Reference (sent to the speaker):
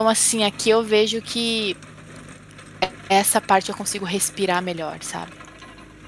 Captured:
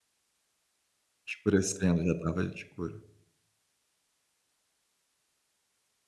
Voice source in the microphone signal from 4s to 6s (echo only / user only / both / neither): neither